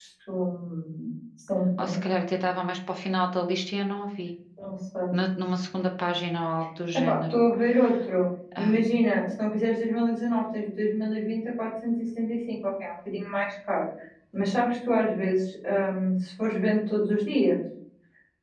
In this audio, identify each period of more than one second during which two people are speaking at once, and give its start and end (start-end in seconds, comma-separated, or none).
none